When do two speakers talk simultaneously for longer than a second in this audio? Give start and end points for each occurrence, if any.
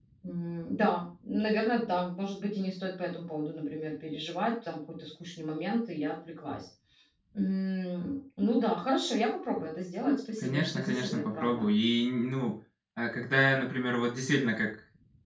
10.4-11.7

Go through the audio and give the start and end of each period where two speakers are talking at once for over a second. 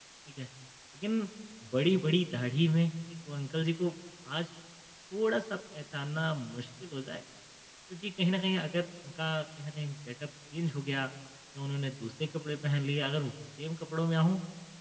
none

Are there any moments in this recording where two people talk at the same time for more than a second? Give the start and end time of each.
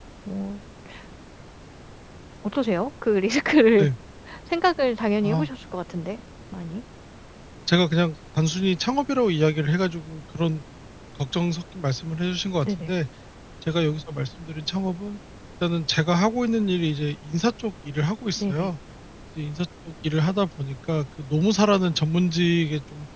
none

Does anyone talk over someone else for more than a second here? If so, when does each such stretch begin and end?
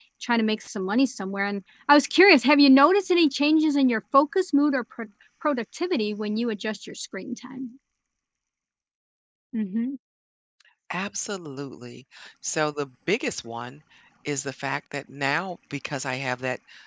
none

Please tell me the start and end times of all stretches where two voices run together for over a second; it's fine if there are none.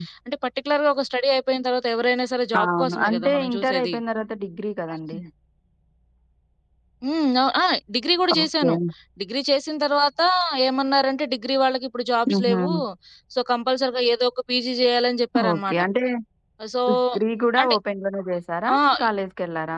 2.6-4.0

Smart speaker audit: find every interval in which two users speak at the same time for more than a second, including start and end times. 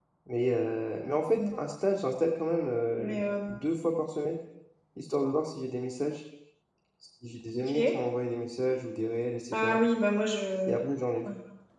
none

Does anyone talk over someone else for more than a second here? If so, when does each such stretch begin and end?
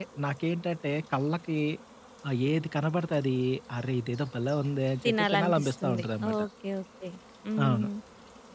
5.0-6.4

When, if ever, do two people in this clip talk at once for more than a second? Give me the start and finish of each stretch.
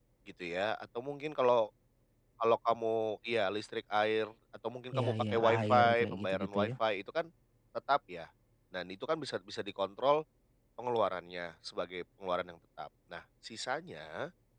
4.9-6.7

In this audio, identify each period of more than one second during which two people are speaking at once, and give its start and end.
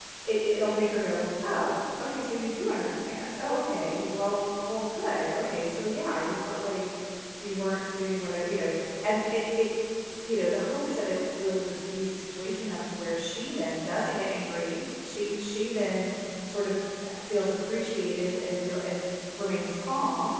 none

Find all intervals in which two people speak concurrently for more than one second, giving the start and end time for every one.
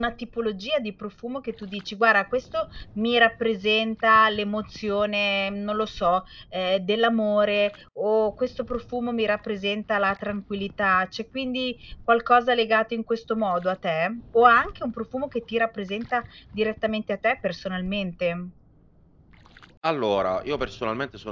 none

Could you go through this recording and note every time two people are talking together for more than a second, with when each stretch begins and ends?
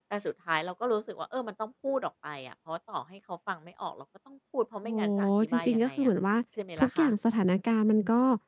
4.8-6.1

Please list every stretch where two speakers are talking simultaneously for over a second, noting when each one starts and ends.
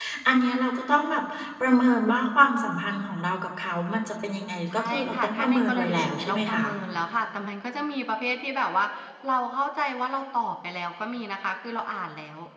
4.7-6.6

